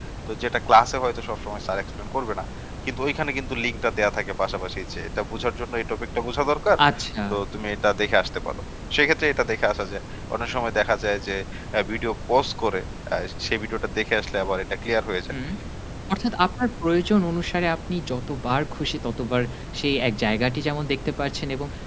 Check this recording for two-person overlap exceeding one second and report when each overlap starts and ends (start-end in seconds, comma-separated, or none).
none